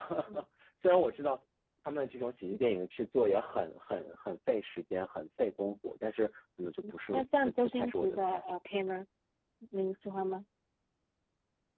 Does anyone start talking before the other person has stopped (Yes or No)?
Yes